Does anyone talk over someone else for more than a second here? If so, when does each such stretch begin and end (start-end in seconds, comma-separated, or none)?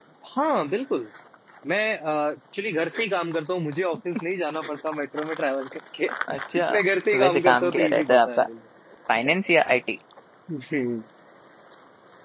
7.1-8.4